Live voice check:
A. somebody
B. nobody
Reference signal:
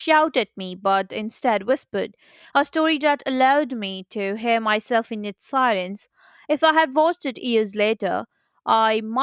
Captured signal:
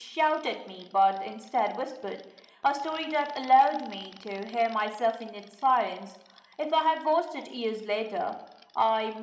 B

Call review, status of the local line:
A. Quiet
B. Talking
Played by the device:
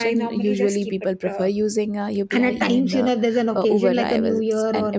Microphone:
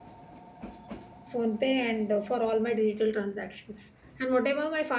B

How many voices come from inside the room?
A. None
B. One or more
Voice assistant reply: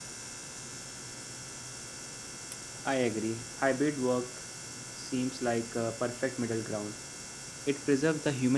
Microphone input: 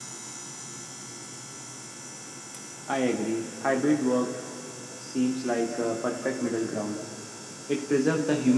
A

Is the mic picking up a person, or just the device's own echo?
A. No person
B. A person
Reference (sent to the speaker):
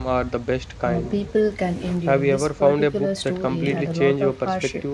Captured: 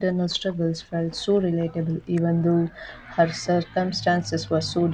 B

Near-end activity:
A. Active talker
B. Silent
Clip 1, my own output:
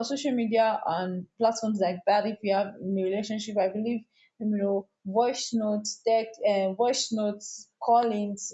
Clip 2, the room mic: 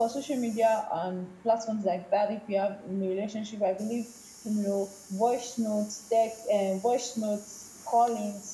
B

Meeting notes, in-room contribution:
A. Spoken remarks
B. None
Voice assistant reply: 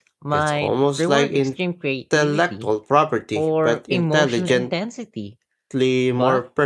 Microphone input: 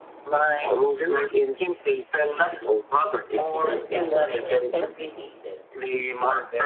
A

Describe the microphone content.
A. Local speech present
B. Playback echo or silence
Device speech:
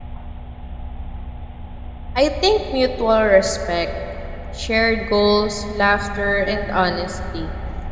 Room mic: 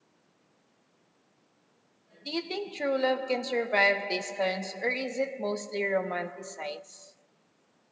A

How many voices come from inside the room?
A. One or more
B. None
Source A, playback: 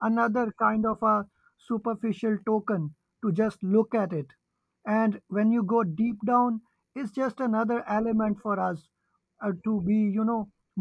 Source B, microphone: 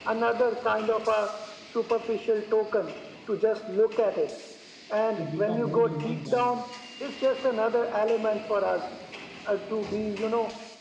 A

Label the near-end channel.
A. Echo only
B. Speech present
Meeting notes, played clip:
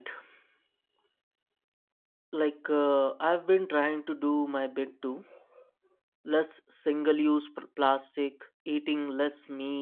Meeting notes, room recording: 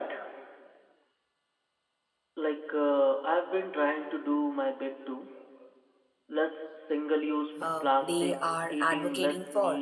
B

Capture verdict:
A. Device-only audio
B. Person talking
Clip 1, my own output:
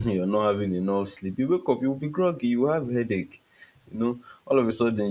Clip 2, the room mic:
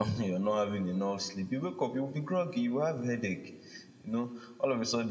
A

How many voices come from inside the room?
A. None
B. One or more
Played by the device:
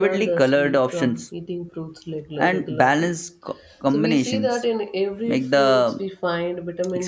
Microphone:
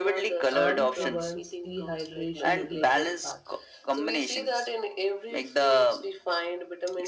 B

